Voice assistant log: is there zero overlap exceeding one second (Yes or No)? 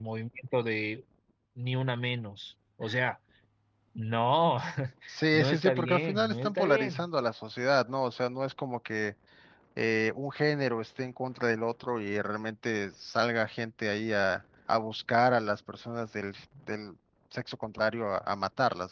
No